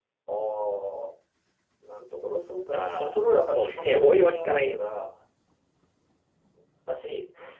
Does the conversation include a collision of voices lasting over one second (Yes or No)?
Yes